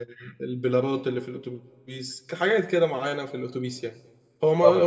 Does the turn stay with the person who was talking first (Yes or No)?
Yes